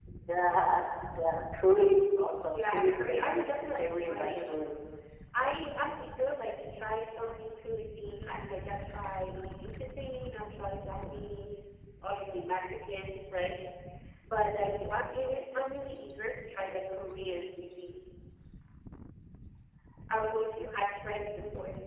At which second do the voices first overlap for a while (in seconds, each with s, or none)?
2.5 s